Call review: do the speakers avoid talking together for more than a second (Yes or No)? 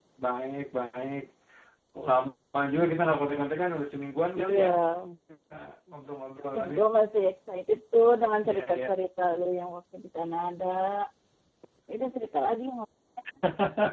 Yes